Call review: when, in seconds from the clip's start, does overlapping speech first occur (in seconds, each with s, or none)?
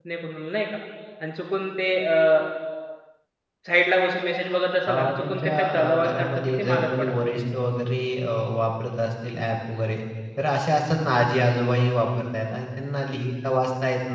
4.9 s